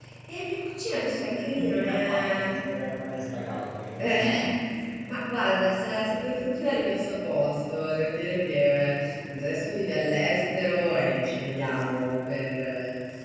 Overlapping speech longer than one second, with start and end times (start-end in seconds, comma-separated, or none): 1.3-2.5